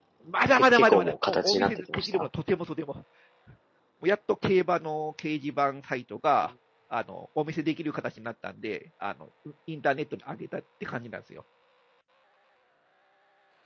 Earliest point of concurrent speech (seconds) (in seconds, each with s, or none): 0.7 s